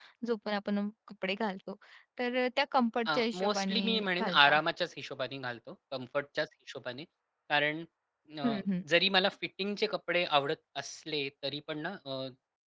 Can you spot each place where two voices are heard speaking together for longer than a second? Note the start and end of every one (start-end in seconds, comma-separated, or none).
3.1-4.5